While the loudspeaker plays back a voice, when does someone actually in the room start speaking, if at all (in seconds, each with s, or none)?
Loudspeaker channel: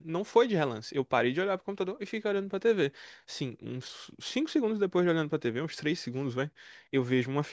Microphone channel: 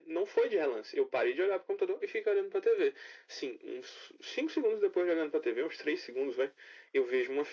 none